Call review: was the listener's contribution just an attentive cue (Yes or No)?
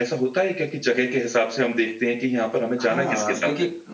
No